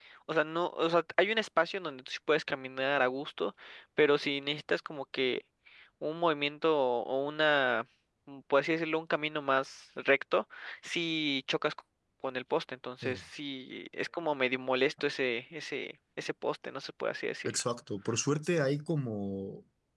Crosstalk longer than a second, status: none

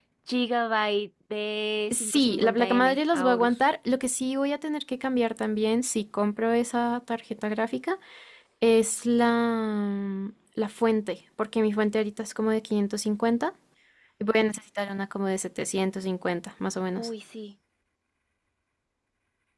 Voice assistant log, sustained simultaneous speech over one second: present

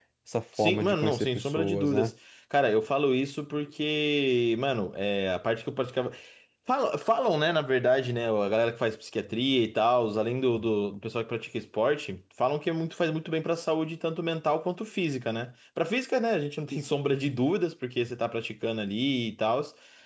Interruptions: present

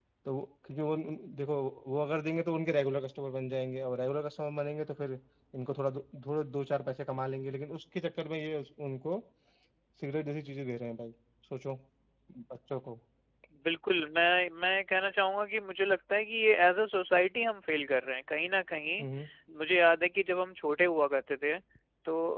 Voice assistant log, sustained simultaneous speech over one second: none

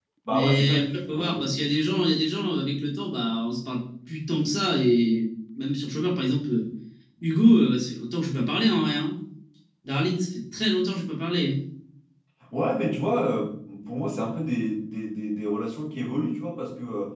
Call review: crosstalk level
present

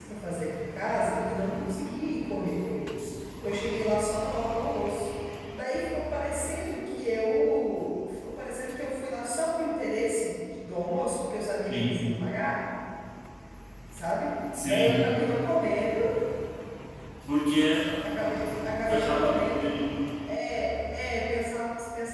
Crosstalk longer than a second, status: present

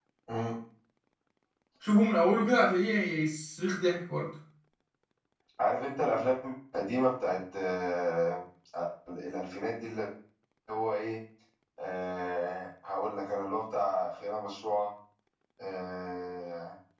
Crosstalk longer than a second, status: none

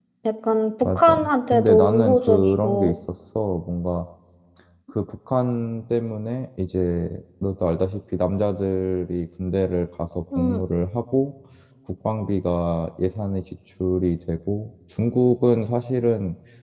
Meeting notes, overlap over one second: present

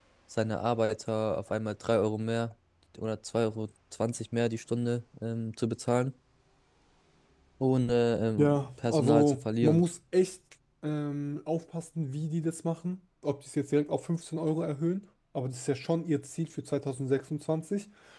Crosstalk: present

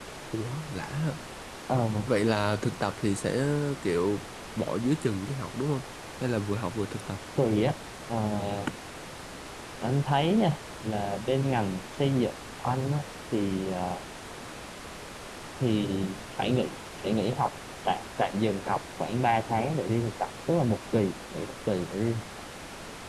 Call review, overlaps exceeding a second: none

